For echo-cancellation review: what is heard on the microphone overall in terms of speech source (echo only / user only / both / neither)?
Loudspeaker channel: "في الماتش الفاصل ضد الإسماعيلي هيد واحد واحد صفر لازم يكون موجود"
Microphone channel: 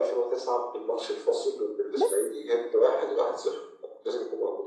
both